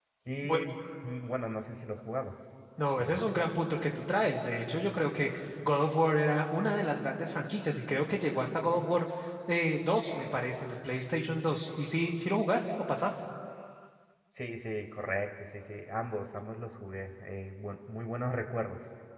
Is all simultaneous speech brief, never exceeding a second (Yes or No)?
Yes